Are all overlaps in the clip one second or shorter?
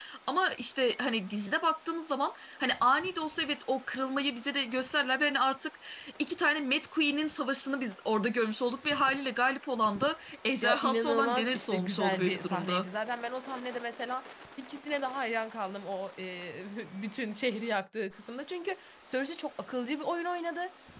No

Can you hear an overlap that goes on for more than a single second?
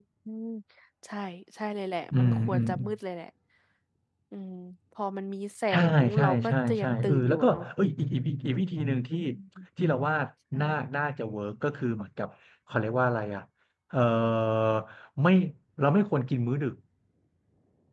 Yes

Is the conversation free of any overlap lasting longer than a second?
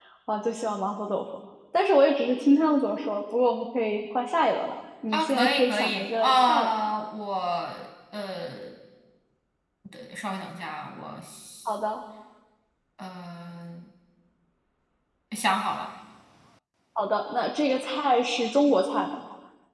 No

